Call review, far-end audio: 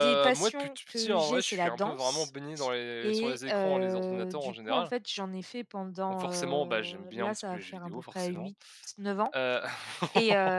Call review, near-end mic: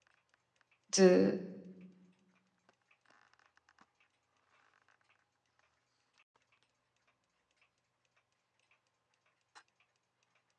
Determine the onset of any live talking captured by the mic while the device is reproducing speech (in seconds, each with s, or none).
1.0 s